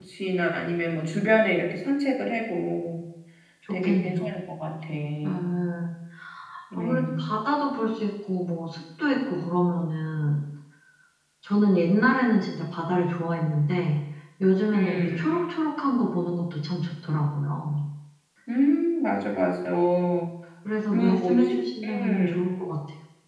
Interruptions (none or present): present